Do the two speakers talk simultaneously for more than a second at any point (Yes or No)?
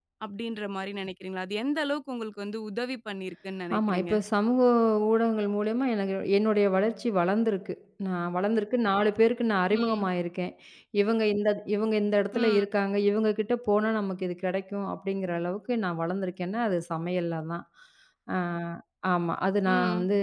No